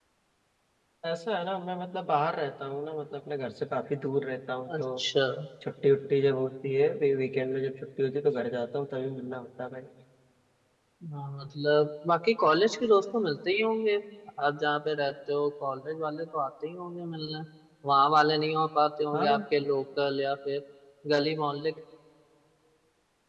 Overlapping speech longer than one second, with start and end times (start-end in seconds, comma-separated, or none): none